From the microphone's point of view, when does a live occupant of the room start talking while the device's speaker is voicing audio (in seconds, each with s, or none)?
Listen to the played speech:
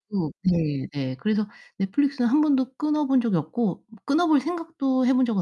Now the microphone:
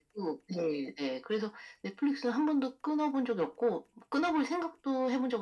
none